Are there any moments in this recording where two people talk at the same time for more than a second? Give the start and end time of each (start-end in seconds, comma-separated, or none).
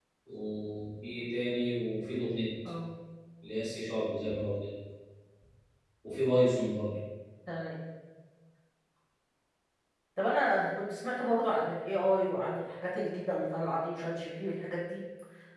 none